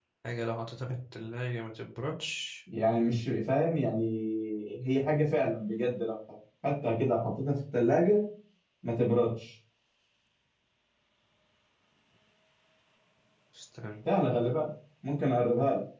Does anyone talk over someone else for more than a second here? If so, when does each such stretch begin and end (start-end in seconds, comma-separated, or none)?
none